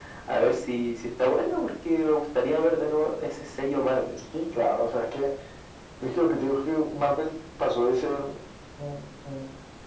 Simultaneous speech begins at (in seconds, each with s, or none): none